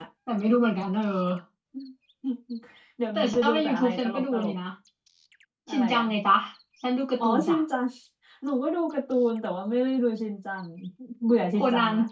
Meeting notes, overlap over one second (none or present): present